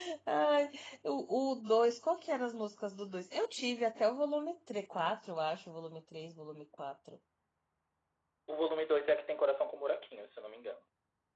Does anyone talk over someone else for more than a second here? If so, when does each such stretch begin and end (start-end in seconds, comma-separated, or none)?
none